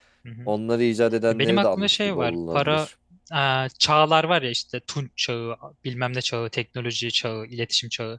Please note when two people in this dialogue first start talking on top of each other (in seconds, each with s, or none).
1.4 s